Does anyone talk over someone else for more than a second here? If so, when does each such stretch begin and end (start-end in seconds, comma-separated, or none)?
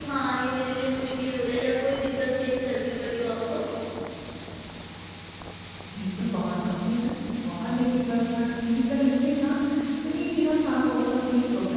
none